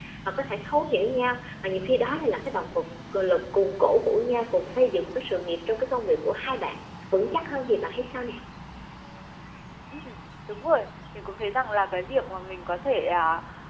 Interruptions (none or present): none